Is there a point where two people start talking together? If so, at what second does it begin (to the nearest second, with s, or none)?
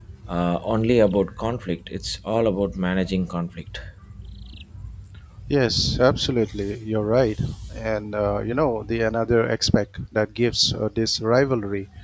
none